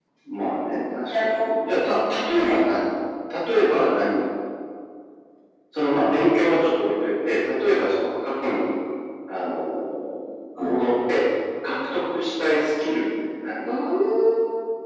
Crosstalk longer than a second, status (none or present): none